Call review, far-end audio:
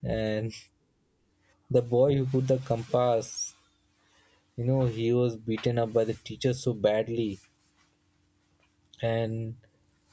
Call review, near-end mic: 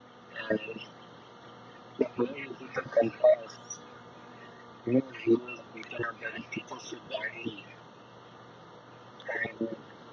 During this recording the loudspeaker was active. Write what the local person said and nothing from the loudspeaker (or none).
none